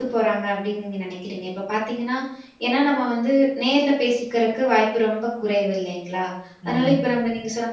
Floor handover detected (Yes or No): No